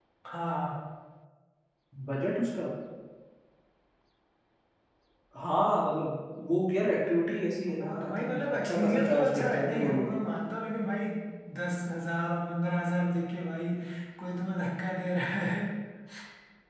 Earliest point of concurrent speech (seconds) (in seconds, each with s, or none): 7.8 s